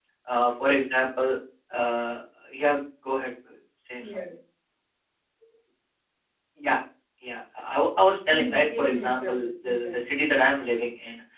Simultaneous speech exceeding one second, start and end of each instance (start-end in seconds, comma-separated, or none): 8.3-10.0